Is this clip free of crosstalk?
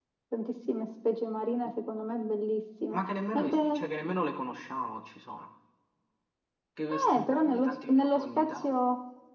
No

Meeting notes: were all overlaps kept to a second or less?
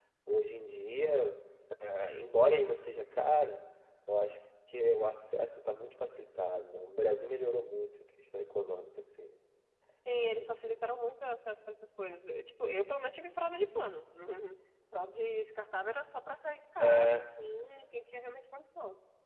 Yes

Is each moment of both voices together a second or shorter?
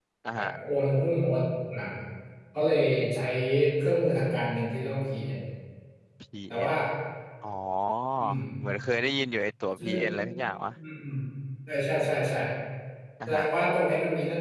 Yes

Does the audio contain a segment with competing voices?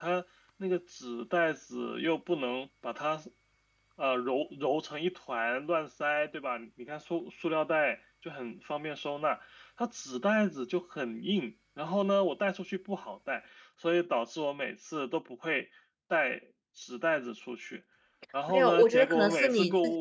Yes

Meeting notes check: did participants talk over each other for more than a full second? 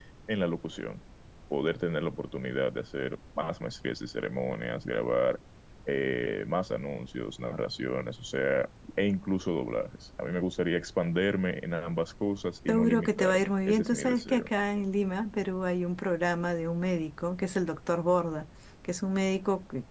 Yes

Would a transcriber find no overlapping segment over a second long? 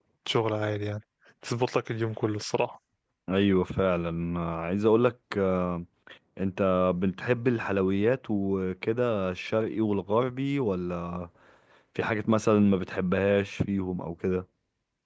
Yes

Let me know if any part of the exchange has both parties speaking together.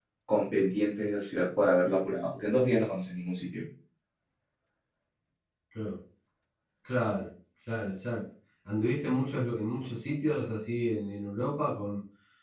No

